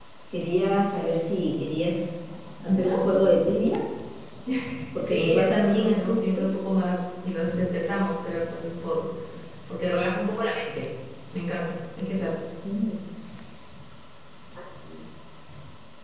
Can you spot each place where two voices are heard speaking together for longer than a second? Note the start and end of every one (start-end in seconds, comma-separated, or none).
5.1-6.5